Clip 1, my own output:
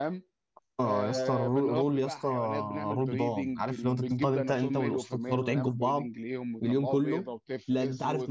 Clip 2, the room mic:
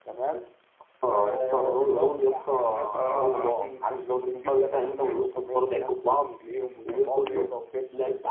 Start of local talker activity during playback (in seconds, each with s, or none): 2.9 s